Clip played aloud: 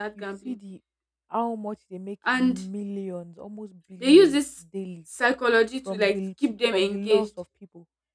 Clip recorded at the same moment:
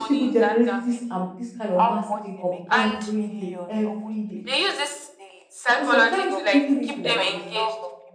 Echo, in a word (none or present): present